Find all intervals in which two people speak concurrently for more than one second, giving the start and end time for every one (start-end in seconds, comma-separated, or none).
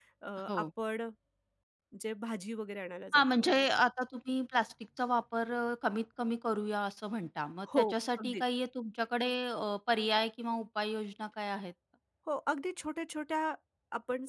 none